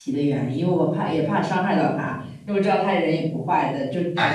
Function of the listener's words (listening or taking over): taking over